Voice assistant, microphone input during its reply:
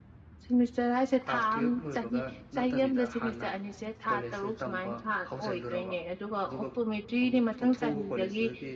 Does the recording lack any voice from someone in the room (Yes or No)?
No